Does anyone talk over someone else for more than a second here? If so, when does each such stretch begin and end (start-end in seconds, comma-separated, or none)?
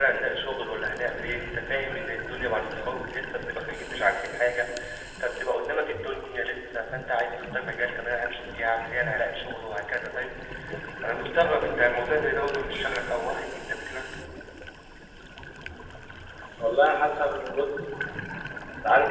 none